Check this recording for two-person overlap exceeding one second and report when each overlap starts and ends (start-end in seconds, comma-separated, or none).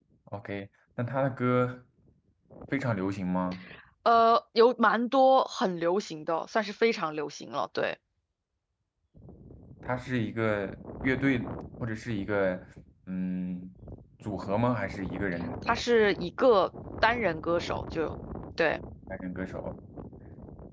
none